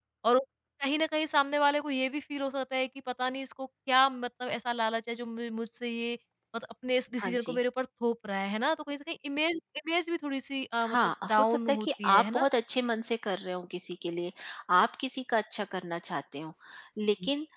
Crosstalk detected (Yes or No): Yes